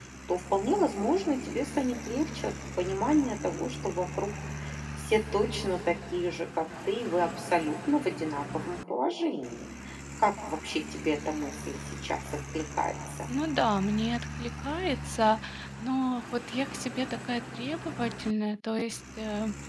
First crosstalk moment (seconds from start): none

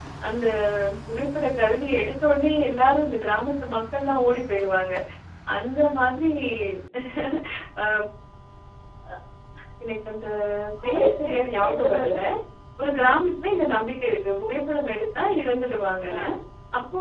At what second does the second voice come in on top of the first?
10.8 s

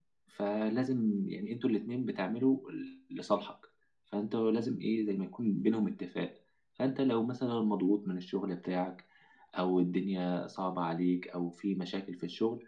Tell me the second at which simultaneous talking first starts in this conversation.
none

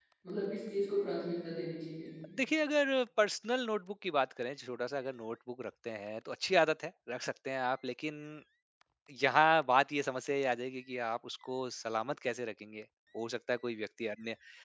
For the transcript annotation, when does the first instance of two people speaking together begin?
none

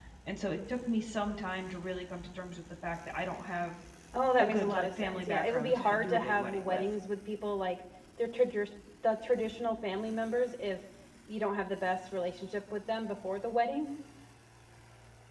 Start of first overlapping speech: 4.4 s

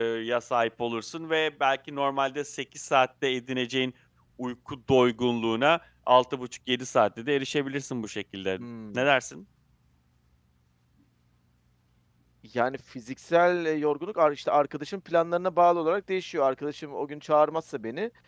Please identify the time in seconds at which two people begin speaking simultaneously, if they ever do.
none

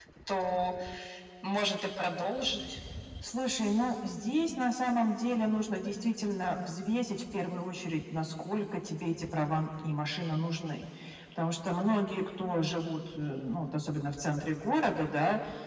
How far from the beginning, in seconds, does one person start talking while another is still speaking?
none

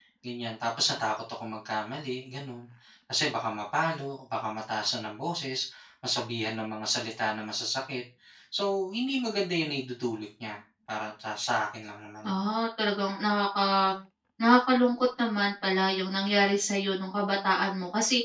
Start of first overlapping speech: none

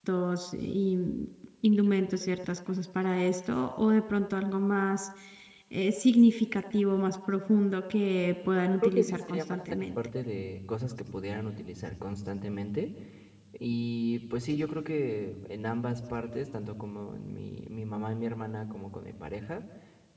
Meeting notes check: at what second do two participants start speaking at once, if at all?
8.6 s

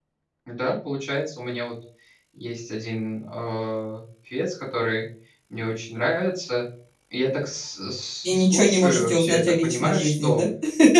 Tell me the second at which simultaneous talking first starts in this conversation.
8.2 s

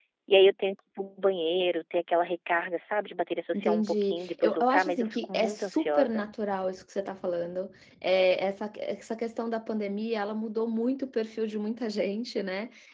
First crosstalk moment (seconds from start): 3.5 s

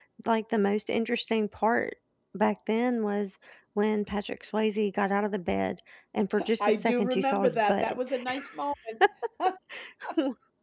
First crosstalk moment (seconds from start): 6.4 s

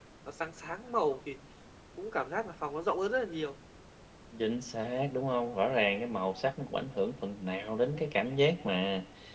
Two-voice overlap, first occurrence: none

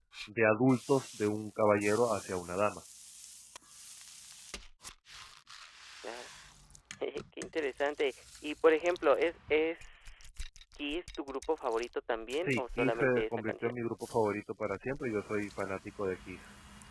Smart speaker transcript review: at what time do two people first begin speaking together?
12.4 s

